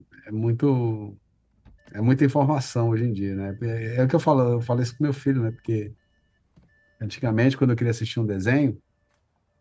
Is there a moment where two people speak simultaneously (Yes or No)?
No